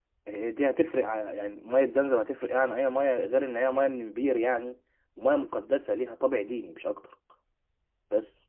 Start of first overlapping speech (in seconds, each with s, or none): none